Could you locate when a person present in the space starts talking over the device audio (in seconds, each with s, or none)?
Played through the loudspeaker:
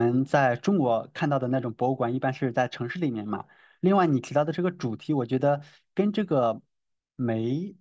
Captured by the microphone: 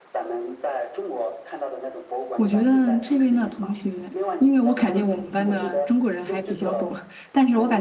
2.3 s